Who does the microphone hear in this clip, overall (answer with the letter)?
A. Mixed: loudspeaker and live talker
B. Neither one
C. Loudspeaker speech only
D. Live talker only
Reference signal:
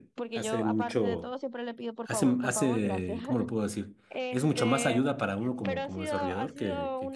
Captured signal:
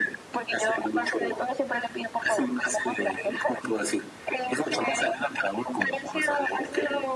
C